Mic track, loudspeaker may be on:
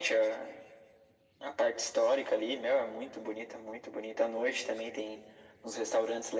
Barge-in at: none

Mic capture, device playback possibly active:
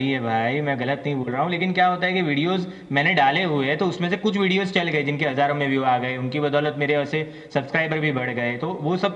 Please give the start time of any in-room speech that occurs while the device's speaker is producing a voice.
none

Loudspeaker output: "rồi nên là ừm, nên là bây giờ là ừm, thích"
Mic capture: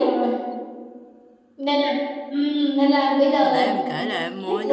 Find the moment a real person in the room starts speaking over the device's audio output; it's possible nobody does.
3.4 s

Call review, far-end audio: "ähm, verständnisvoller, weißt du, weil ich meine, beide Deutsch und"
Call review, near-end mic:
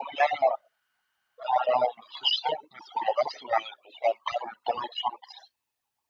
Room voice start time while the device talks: none

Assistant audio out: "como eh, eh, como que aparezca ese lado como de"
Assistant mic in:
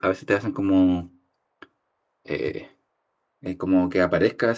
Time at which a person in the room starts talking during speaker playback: none

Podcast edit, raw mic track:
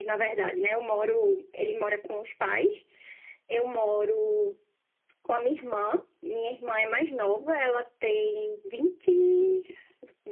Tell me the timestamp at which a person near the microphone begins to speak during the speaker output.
none

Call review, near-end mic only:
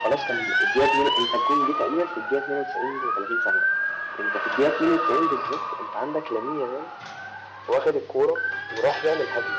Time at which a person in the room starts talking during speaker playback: none

